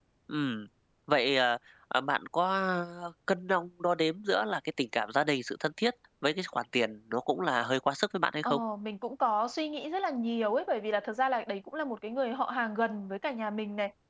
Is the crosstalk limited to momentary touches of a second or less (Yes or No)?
Yes